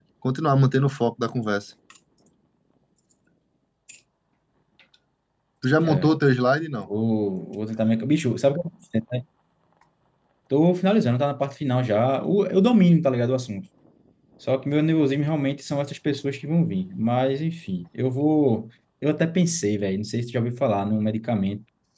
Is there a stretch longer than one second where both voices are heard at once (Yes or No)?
No